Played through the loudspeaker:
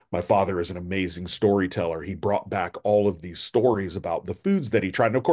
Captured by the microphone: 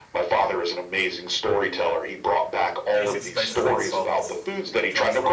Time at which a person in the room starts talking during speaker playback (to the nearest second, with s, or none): 3 s